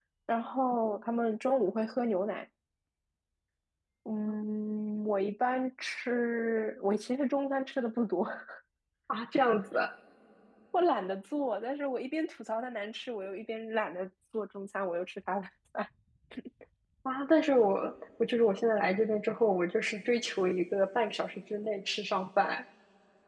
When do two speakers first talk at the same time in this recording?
none

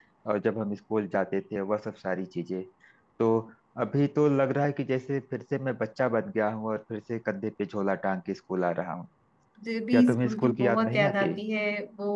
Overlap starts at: 9.9 s

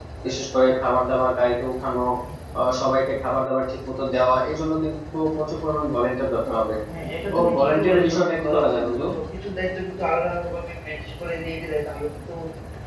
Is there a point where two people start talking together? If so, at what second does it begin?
7.3 s

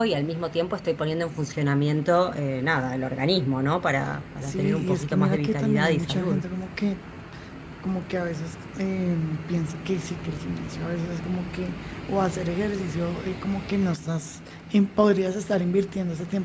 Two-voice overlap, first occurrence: 4.4 s

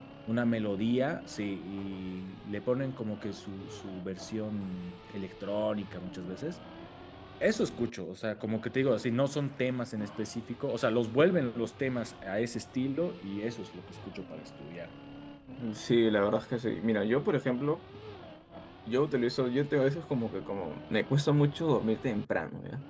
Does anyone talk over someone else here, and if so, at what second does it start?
none

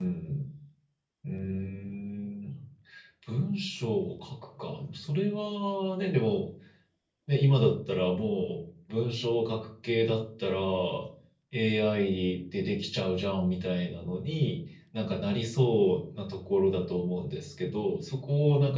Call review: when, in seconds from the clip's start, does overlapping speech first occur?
none

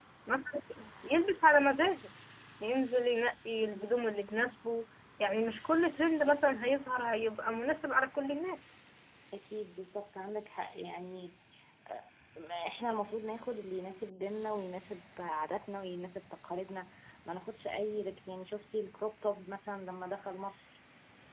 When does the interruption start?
none

